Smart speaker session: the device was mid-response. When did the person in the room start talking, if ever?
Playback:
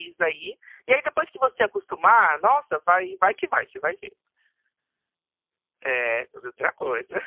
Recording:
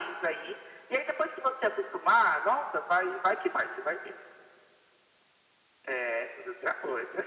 none

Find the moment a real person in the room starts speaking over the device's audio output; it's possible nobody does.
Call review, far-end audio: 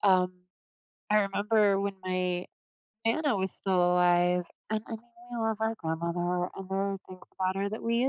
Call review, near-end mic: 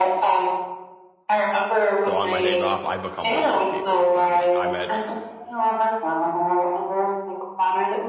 2.0 s

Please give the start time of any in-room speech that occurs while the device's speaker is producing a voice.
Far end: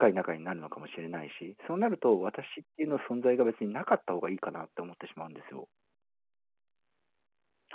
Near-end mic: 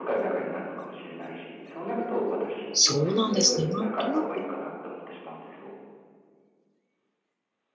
2.7 s

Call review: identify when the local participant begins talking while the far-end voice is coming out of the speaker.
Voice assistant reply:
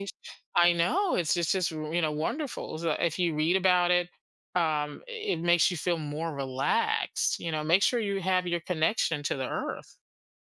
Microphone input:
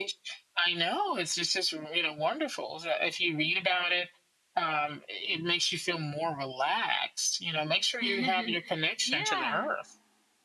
8.0 s

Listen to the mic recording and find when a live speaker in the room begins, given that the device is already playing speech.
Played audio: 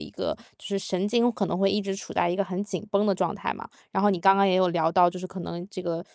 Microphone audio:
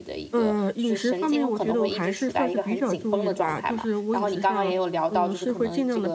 0.3 s

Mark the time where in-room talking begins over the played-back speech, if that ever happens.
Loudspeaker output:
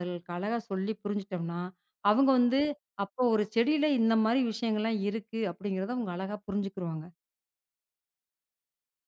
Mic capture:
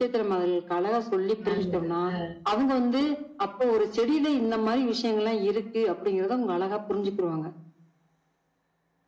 1.5 s

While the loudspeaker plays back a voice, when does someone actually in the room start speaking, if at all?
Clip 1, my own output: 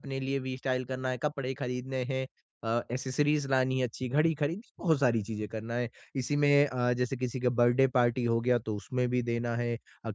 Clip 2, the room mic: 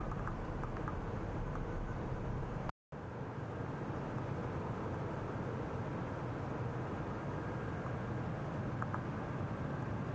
none

